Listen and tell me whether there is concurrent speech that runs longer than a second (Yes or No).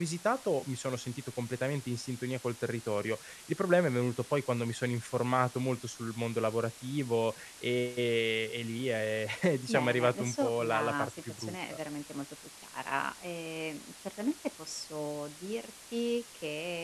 Yes